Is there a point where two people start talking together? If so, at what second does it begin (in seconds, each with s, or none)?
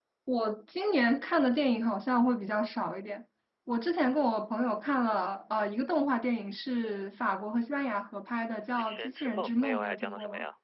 8.7 s